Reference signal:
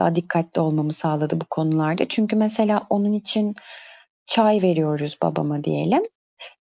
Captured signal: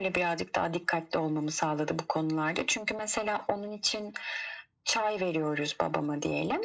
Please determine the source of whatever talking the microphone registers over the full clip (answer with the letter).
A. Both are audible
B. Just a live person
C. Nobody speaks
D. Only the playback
D